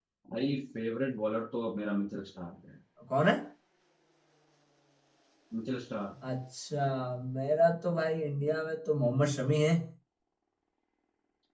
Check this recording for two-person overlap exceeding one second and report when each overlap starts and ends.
none

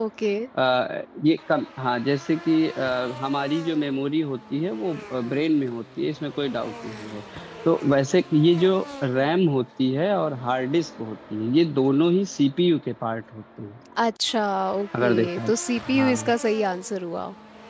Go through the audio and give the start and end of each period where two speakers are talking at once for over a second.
none

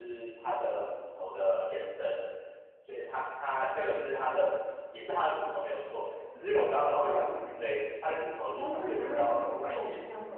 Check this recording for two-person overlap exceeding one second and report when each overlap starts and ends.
8.6-9.8

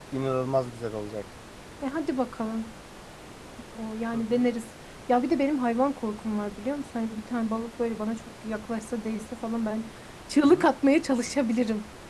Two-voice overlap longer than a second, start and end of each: none

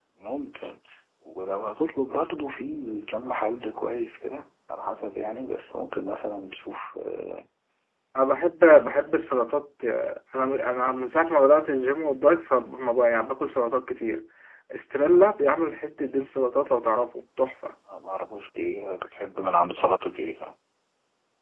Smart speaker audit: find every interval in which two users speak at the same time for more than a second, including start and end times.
none

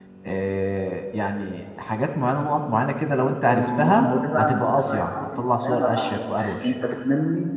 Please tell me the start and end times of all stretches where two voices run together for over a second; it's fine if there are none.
3.4-6.7

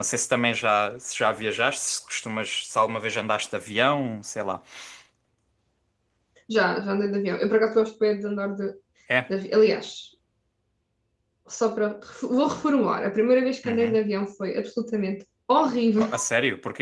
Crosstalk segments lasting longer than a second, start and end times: none

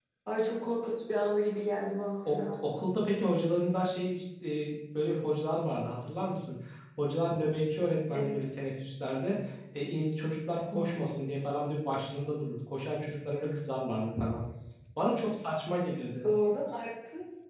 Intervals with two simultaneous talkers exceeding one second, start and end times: none

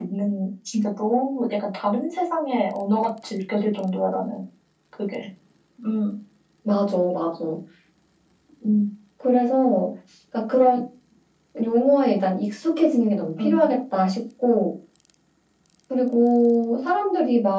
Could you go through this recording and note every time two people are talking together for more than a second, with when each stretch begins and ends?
none

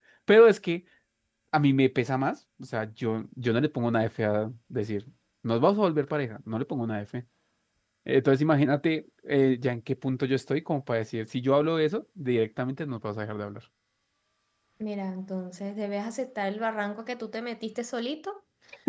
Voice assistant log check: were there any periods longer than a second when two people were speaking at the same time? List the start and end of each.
none

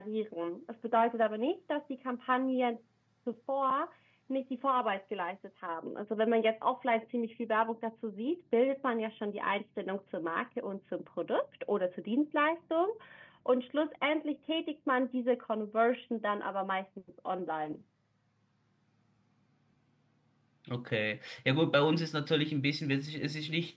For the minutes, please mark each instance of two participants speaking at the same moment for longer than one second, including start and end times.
none

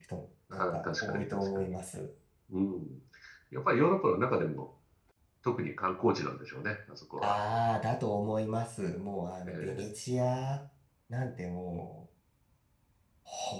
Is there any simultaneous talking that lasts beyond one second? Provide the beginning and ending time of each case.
0.5-1.8

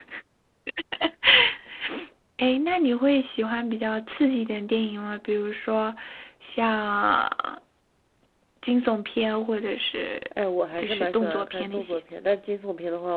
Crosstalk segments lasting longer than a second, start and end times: 10.8-12.0

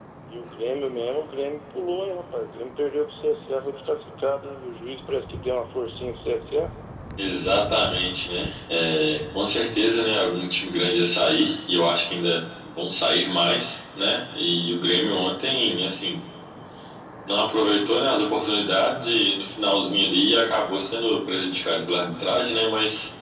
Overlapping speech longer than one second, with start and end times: none

